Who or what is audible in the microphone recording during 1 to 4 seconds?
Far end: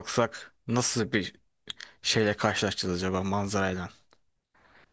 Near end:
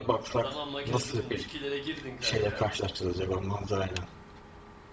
both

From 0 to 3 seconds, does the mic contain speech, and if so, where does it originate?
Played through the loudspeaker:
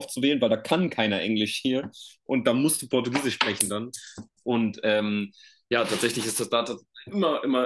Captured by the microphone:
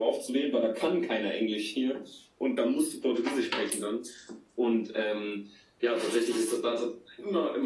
echo only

